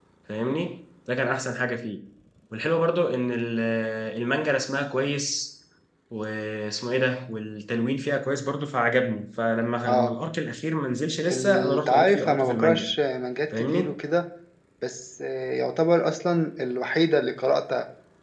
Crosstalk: present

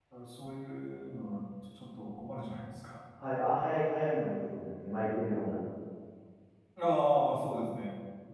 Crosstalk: none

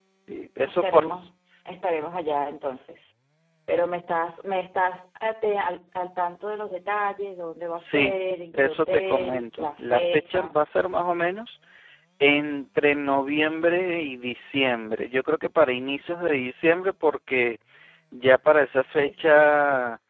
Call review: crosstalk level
present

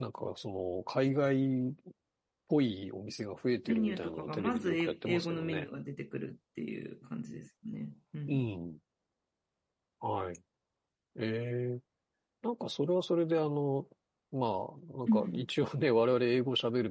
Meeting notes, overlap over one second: present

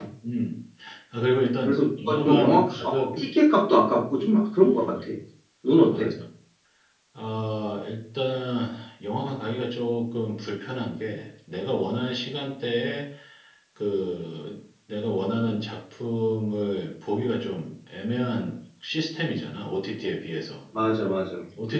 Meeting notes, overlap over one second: present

